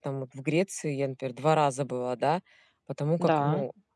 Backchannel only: Yes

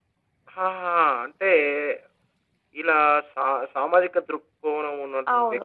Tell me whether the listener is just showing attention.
No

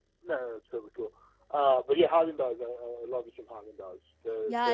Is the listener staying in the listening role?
No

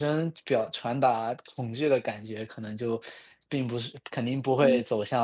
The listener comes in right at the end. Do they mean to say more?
No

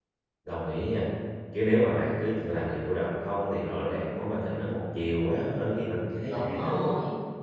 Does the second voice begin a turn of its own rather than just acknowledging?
Yes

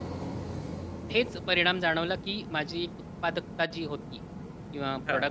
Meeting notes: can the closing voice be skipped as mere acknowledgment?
Yes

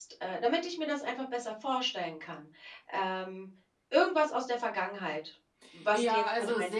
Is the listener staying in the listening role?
No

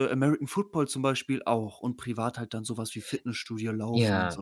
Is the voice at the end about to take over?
Yes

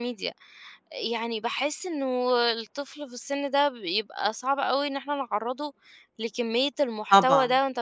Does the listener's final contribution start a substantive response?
No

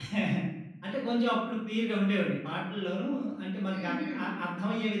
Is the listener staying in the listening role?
Yes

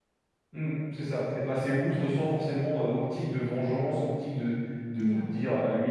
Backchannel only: Yes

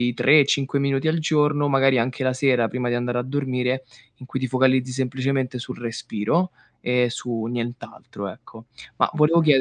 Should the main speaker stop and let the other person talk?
No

